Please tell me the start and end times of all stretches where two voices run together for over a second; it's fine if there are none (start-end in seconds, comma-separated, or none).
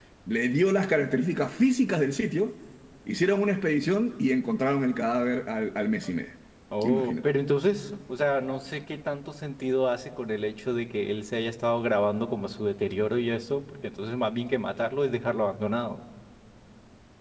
none